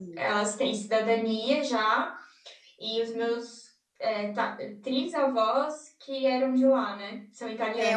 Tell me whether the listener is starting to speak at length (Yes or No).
Yes